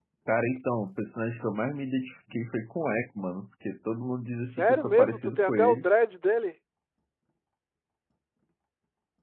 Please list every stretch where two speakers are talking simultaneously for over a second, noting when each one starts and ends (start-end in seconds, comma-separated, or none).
4.4-5.9